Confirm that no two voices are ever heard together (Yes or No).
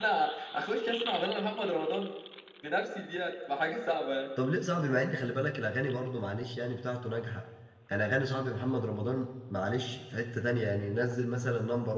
Yes